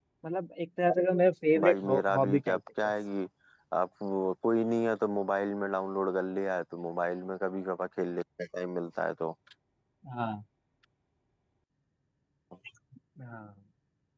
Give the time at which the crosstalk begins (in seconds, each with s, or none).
1.6 s